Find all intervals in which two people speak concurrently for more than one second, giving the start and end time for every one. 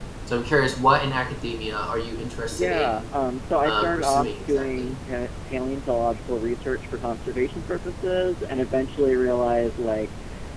3.6-4.9

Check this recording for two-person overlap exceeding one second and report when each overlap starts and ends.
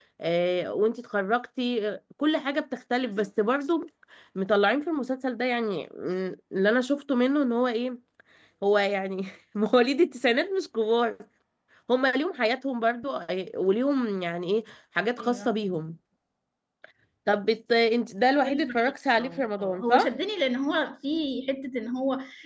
18.4-20.1

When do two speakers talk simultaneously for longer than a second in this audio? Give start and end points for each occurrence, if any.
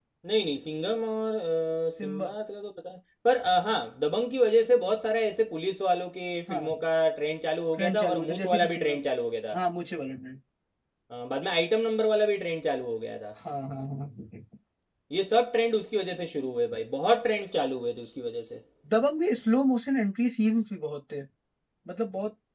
7.8-9.0

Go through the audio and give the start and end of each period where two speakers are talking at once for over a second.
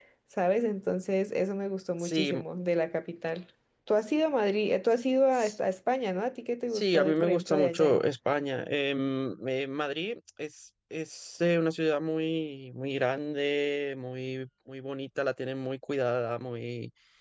6.7-8.0

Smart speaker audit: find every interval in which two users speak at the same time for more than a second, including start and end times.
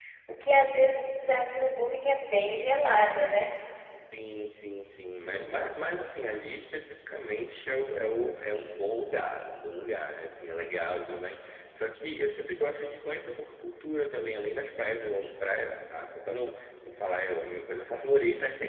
none

